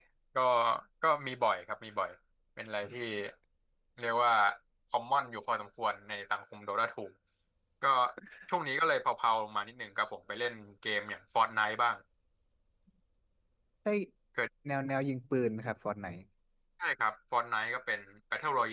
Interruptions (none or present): none